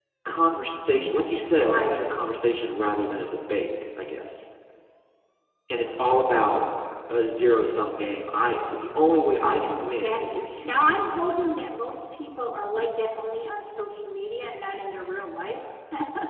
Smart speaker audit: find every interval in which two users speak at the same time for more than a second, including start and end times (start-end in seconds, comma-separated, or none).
9.8-11.2